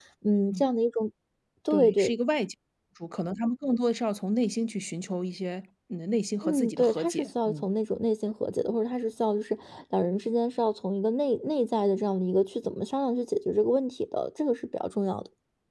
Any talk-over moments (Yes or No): Yes